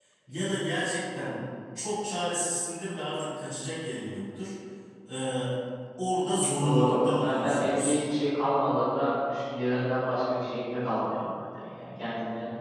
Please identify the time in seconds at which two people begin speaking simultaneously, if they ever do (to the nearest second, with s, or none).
7 s